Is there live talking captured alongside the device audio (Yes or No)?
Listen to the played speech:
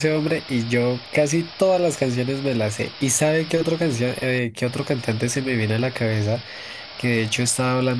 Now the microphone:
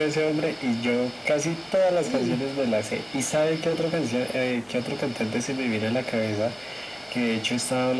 Yes